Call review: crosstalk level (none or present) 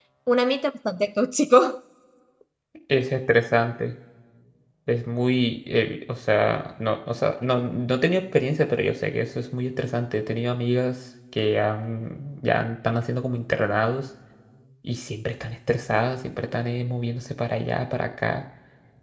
none